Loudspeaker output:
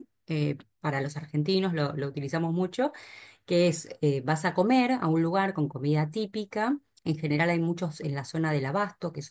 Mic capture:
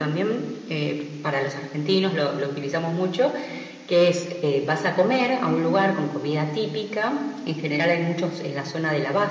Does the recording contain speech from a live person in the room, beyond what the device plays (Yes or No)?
No